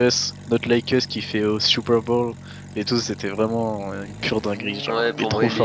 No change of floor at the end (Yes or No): No